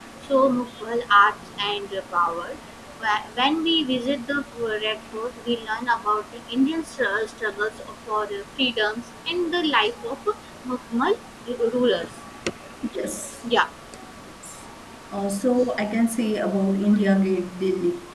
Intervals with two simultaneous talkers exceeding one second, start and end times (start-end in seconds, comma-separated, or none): none